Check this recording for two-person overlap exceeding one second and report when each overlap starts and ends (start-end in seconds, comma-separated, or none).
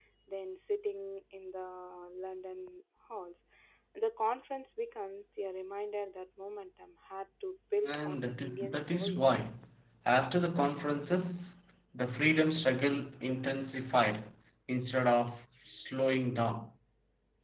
7.8-9.2